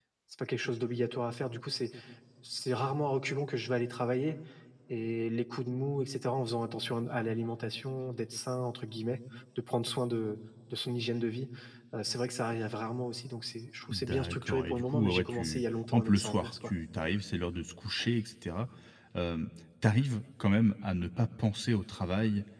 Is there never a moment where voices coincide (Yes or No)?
No